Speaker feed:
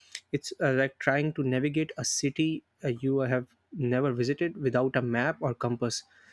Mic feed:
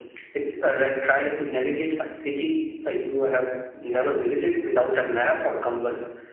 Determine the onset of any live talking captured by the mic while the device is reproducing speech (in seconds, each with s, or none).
none